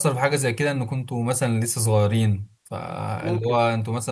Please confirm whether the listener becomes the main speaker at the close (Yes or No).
No